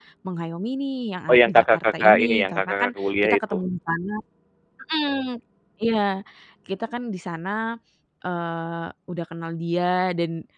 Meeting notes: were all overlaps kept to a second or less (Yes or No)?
No